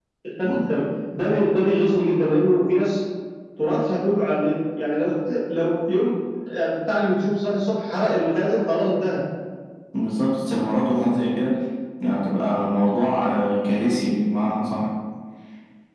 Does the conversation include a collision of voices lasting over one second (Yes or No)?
No